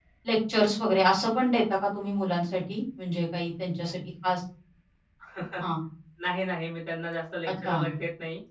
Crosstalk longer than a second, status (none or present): none